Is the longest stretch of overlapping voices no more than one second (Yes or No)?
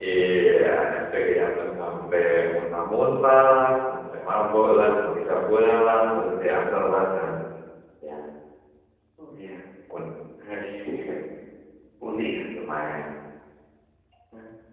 Yes